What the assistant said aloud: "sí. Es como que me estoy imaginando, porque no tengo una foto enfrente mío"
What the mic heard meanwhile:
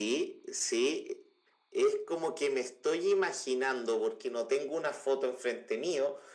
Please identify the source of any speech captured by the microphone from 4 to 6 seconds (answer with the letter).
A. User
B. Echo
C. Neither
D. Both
B